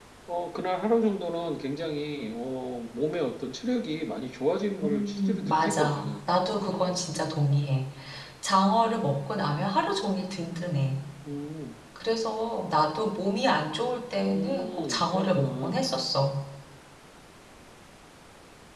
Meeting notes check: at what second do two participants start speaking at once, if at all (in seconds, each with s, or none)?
4.8 s